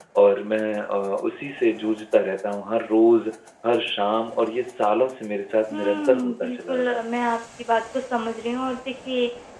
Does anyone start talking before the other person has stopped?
Yes, from 5.7 s

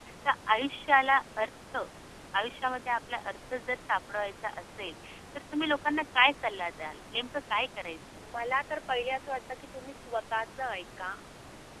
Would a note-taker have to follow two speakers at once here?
No

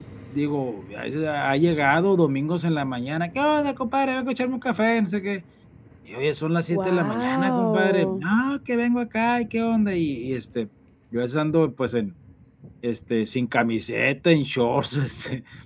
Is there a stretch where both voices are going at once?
Yes, from 6.7 s

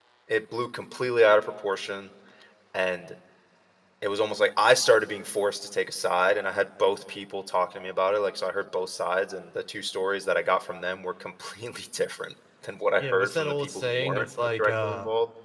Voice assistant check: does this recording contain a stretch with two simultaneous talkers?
Yes, from 13.0 s

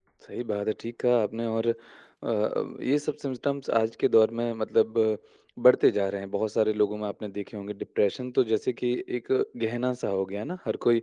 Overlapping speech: No

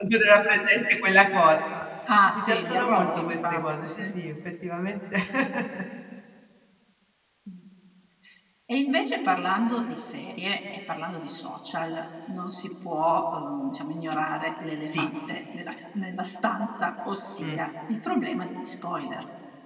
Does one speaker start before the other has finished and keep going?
Yes, from 2.3 s

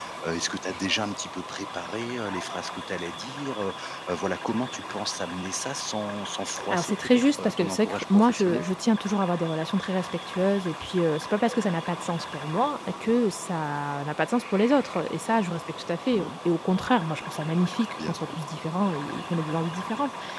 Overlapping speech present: Yes, from 6.7 s

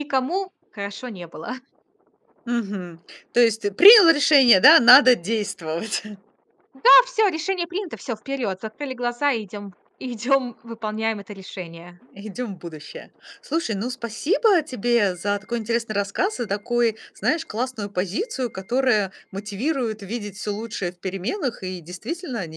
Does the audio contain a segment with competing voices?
No

